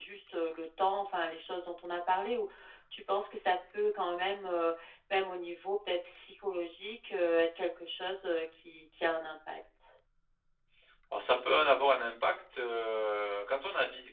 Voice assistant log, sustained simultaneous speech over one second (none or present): none